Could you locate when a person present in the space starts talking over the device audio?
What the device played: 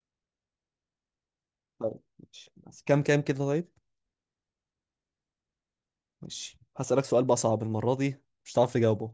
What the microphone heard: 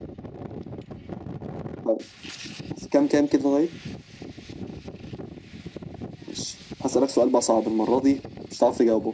none

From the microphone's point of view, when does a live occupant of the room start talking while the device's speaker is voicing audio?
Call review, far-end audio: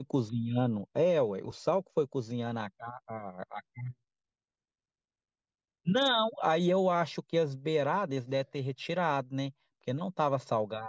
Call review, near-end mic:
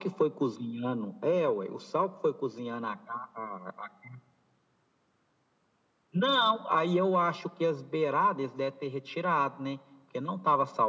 none

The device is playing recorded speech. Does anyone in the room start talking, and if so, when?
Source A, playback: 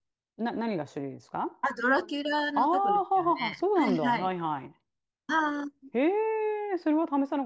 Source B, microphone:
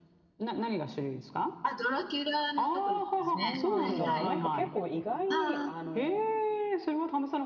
3.2 s

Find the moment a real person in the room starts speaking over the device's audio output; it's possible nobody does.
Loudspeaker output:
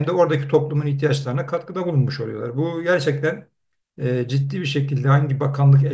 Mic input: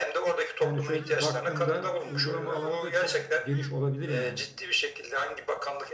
0.6 s

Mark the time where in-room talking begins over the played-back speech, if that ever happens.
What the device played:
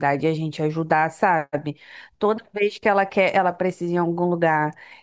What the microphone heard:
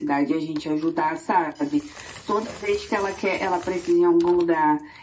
none

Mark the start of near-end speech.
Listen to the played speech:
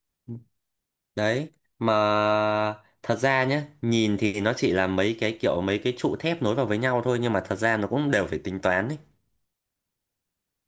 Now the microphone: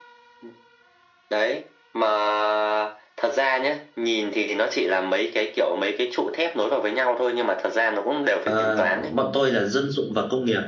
8.4 s

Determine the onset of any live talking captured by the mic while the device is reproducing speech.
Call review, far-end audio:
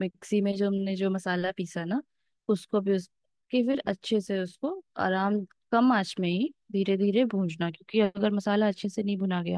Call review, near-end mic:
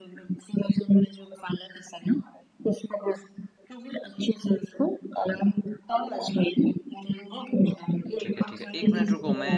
8.2 s

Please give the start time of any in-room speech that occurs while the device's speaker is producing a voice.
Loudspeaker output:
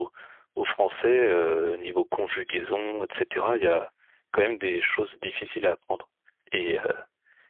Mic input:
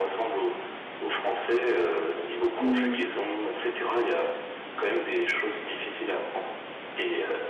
2.6 s

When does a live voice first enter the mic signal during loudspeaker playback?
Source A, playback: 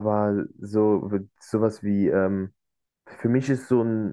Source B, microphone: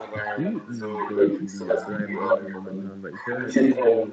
0.3 s

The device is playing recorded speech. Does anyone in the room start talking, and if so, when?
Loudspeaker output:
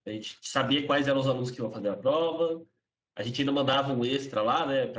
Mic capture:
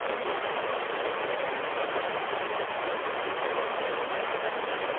none

